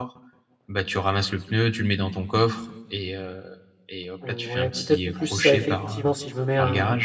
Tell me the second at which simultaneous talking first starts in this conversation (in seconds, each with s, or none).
4.3 s